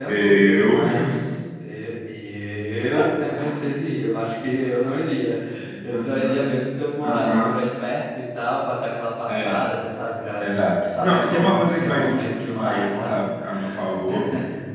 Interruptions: present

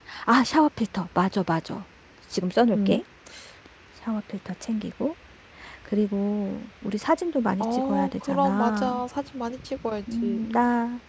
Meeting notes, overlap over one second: present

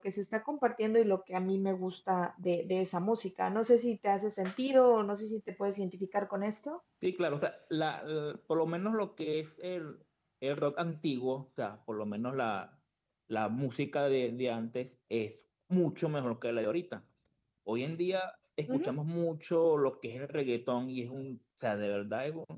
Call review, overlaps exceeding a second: none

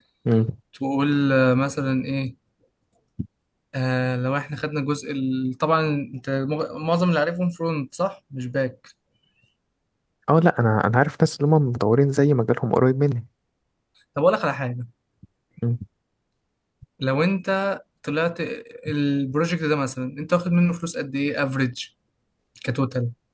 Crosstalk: none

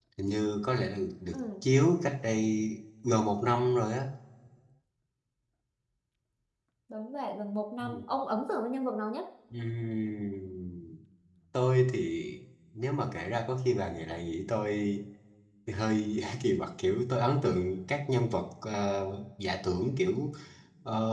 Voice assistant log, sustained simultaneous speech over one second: none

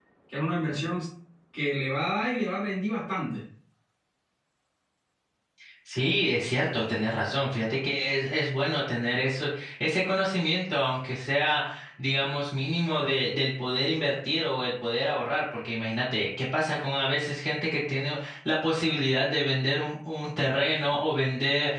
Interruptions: none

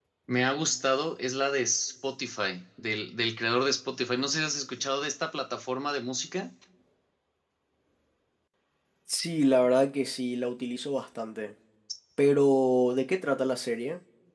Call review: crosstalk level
none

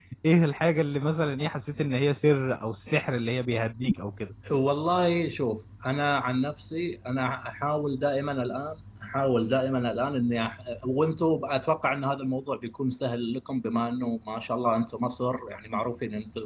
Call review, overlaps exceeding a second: none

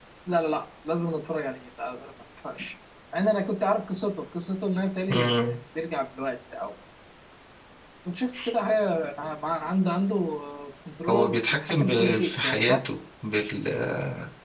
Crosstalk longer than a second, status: present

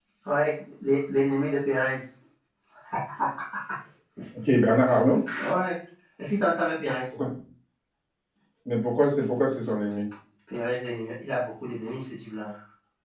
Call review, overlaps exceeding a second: none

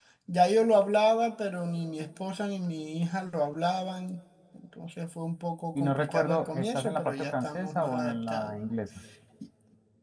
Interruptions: present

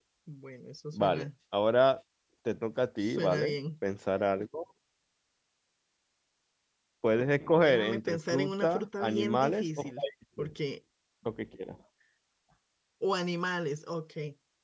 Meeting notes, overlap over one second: present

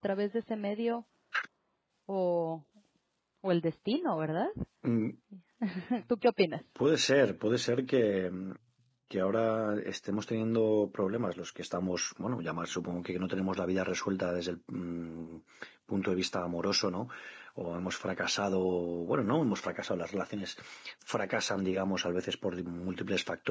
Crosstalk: none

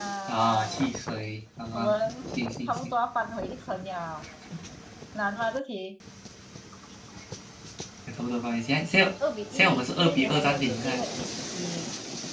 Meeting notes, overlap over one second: present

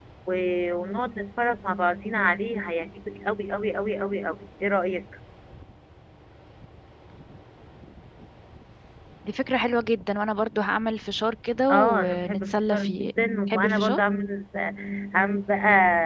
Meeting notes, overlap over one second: present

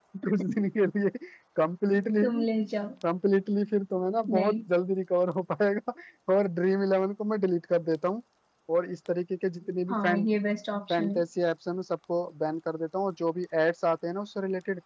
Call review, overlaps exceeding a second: none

